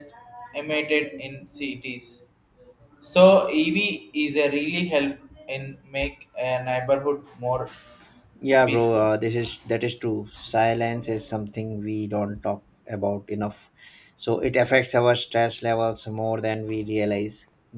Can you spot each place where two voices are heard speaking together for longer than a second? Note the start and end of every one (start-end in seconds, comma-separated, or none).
none